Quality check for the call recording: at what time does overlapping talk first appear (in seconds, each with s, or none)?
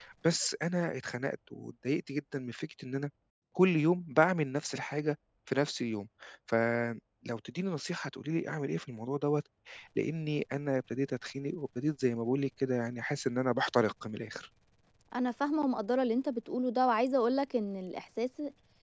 none